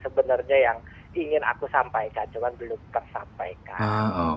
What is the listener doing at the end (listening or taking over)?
taking over